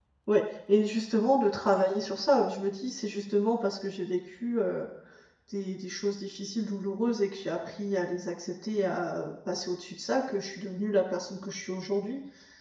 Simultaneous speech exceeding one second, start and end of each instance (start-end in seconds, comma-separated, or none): none